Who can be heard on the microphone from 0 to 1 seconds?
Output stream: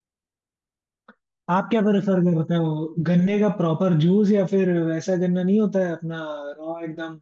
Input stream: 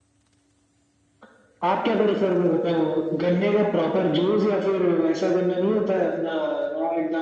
neither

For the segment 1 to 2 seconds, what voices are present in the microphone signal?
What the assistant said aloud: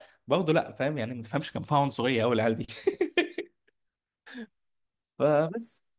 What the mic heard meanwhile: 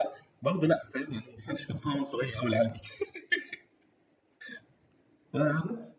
echo only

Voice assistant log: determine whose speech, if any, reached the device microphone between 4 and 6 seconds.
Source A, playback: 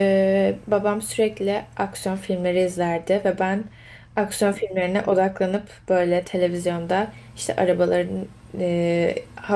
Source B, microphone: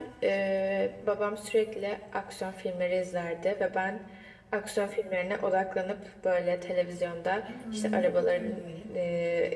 echo only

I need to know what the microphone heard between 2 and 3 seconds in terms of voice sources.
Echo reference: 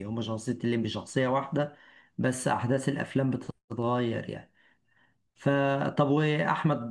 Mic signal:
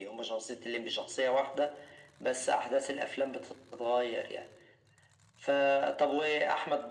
echo only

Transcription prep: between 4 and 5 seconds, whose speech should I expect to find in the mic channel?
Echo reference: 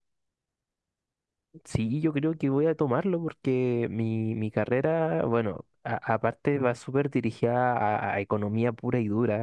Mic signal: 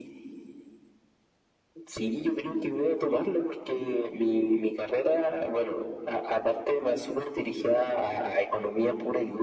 echo only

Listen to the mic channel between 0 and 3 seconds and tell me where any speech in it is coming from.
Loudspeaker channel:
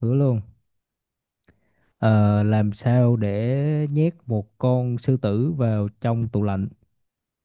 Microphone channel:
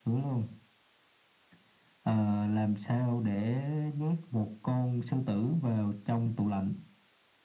echo only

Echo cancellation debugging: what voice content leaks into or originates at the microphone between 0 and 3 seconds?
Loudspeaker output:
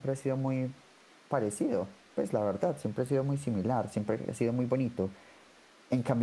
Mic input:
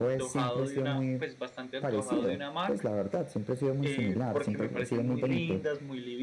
both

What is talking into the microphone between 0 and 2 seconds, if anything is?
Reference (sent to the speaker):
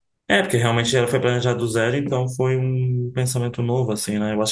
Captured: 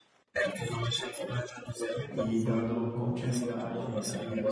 echo only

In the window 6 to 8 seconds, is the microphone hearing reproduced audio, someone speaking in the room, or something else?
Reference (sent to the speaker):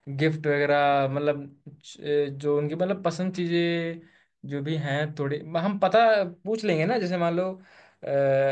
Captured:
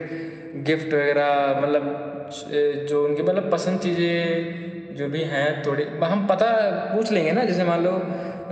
echo only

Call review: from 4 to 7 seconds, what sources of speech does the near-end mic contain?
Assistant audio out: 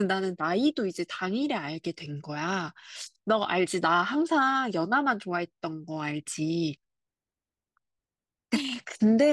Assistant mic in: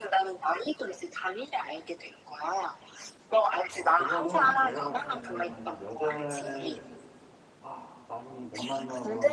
both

